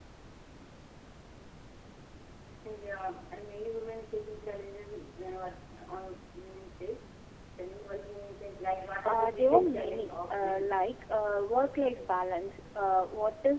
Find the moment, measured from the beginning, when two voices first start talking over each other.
9.0 s

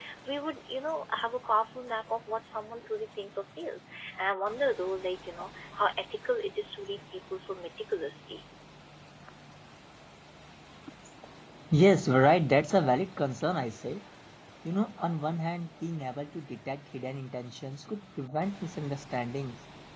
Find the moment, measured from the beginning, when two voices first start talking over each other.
none

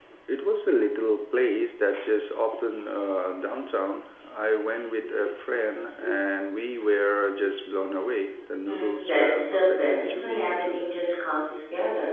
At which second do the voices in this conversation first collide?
8.7 s

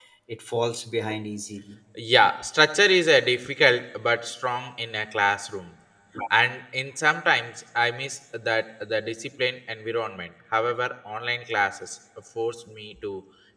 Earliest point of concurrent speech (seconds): none

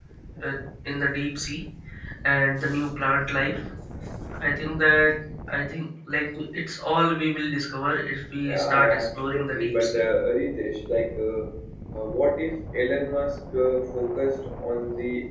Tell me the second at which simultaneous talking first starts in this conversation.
8.4 s

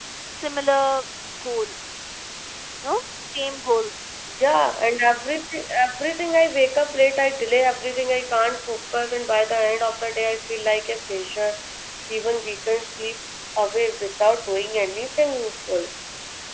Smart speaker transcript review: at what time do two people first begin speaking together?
none

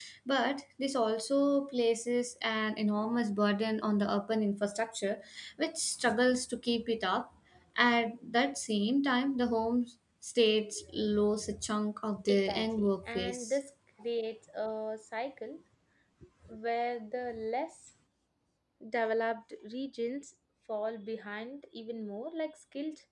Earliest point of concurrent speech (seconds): 12.2 s

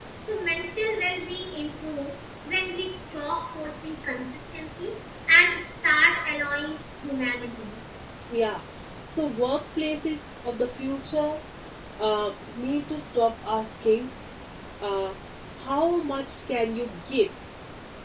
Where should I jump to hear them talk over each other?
none

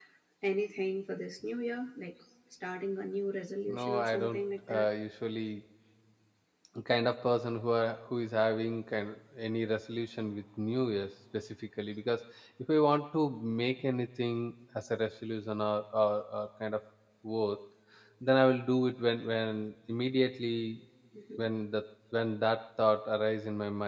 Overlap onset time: 3.7 s

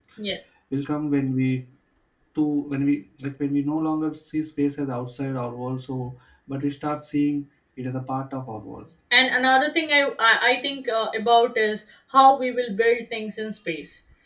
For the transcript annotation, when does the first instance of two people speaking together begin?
none

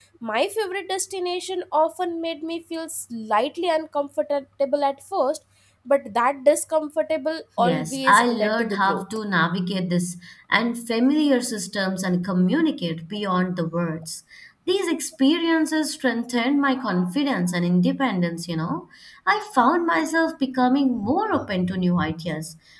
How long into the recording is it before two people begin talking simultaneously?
7.6 s

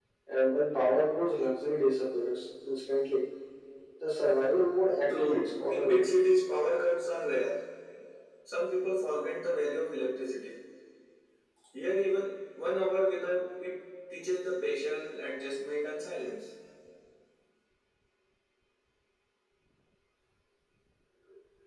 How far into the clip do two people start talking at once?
5.0 s

